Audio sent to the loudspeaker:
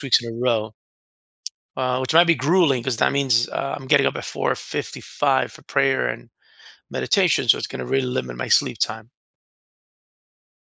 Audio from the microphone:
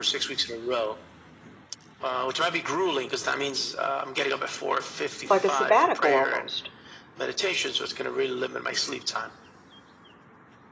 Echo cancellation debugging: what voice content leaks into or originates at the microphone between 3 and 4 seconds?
echo only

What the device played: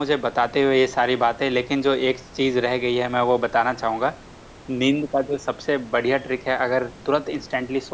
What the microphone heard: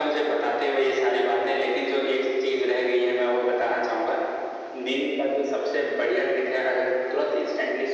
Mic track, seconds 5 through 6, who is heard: echo only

